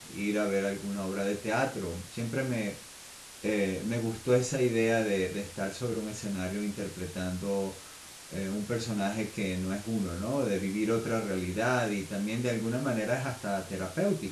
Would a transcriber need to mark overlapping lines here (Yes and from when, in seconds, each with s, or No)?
No